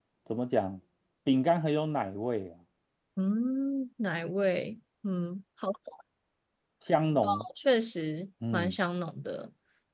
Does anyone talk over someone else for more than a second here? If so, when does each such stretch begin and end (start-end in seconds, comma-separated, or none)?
none